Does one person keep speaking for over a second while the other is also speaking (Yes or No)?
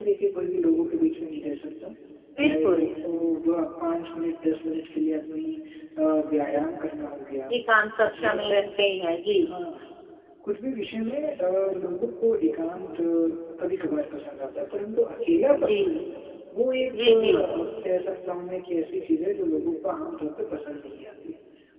No